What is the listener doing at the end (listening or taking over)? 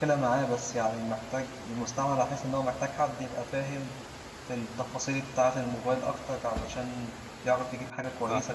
listening